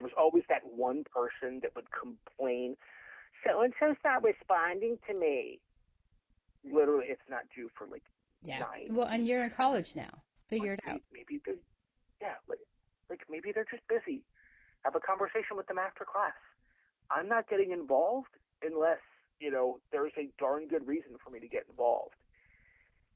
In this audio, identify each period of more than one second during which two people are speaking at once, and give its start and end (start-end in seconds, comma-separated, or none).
8.4-9.6